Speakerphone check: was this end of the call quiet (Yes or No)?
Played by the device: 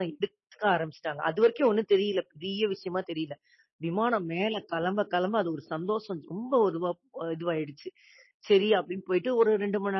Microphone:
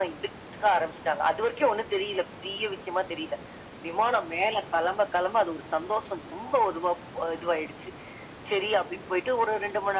Yes